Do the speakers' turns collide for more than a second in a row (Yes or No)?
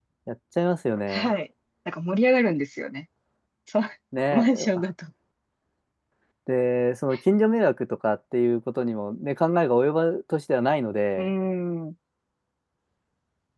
No